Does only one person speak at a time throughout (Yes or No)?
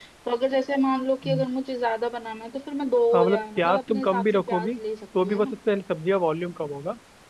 No